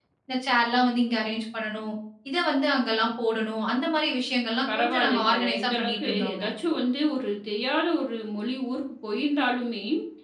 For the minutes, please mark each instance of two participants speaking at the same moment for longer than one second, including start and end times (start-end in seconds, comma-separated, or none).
4.8-6.4